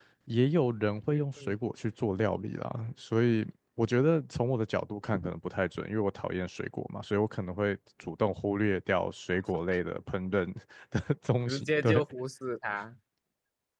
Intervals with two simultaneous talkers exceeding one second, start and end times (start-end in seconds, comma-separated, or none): none